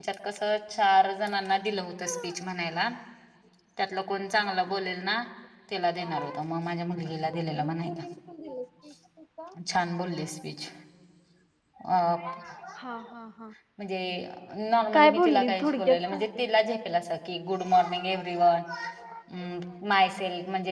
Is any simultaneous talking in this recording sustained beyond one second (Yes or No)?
Yes